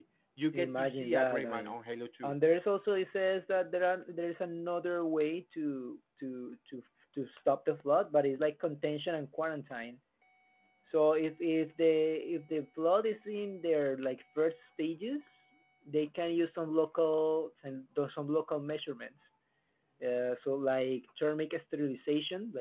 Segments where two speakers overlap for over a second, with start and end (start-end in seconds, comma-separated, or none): 0.5-1.7